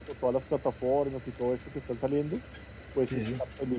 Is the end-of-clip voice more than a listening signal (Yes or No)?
No